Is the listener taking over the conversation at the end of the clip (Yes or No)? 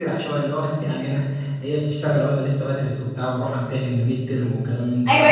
Yes